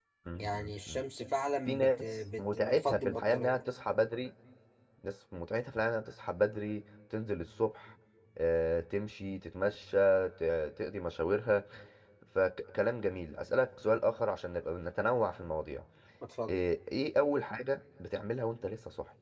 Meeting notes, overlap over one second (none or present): present